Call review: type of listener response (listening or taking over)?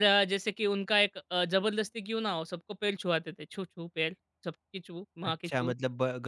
taking over